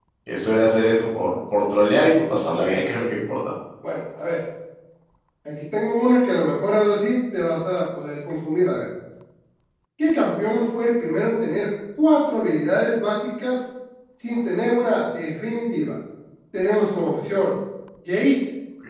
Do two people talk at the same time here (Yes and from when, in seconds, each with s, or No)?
No